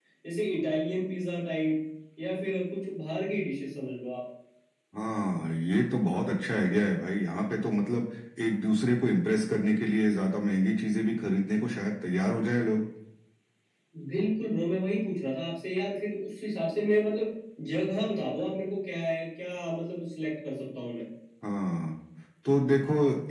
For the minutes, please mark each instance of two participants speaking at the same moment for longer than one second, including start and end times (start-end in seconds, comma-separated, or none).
none